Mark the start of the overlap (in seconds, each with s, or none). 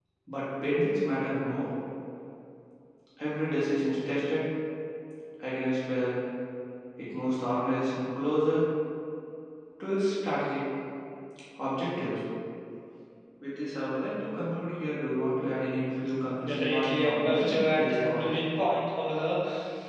16.4 s